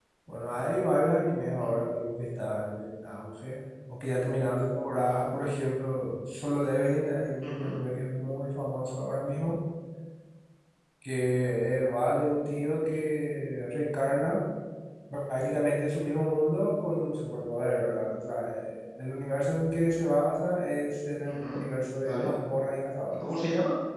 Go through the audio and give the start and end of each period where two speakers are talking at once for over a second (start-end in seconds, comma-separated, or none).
none